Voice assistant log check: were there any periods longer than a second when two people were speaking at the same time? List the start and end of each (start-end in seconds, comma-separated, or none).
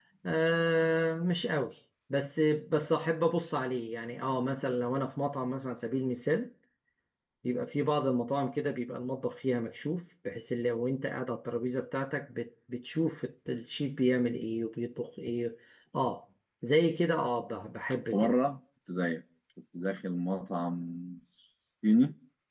none